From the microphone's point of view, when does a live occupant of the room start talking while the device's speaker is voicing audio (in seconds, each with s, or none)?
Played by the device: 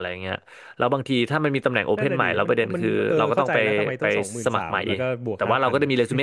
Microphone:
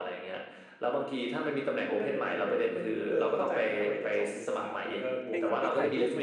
5.3 s